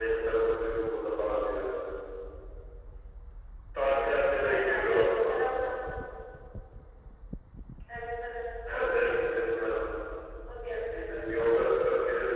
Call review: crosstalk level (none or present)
present